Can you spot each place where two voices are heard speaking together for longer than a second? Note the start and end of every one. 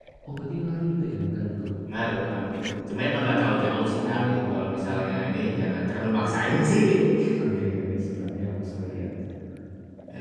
3.6-5.6

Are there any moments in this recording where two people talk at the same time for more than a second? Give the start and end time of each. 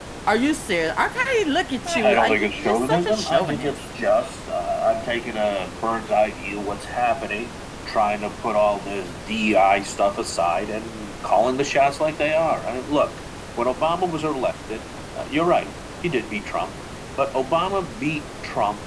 1.8-3.8

